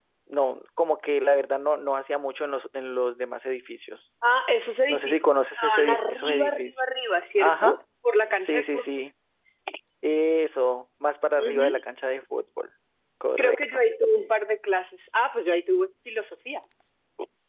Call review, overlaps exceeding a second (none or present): present